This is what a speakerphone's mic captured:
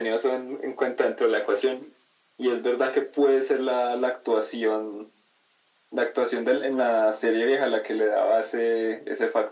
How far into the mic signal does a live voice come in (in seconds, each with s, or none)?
none